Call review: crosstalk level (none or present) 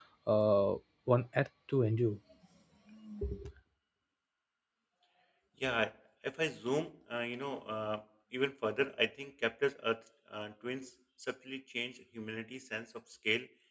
none